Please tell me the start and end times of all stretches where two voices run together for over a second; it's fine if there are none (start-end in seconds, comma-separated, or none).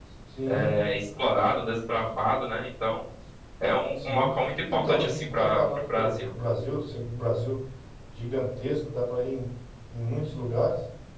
4.7-6.2